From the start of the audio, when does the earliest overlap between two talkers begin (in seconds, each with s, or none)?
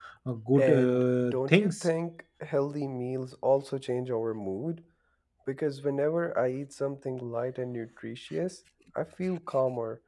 0.6 s